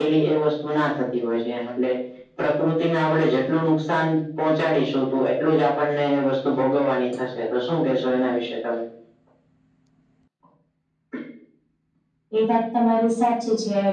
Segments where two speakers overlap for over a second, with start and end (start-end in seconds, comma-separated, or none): none